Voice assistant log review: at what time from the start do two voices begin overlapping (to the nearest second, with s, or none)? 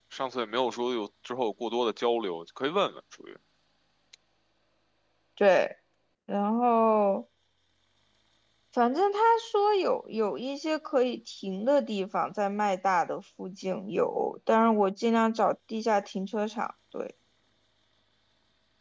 none